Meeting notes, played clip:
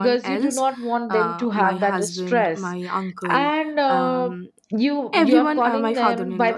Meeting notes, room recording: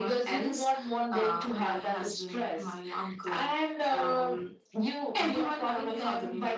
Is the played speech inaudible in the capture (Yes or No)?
No